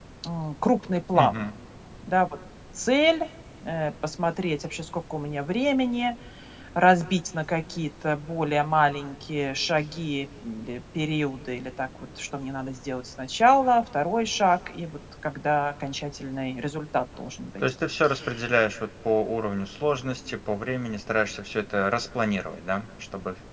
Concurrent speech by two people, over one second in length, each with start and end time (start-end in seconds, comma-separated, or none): none